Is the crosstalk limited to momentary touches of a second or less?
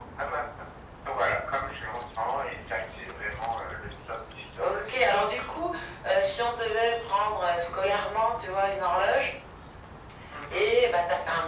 Yes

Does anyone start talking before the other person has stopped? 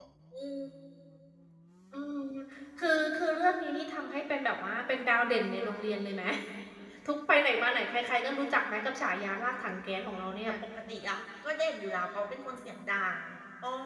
No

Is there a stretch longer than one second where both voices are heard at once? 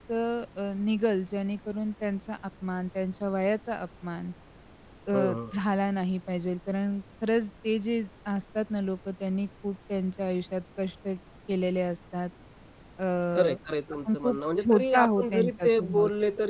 Yes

